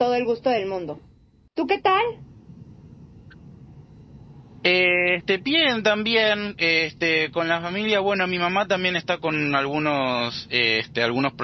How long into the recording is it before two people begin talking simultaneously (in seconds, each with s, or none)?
none